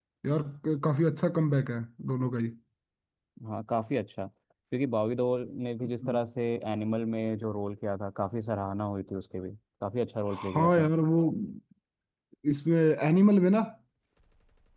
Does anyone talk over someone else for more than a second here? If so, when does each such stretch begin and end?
none

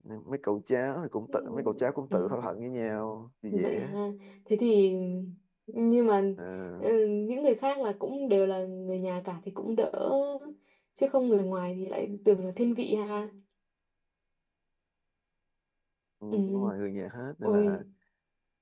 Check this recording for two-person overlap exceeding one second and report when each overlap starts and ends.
none

